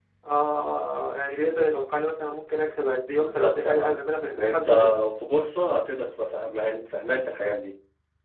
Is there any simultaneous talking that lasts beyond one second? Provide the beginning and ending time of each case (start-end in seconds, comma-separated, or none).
3.1-4.9